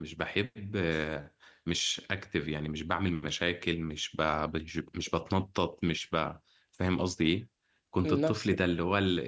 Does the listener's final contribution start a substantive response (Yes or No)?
No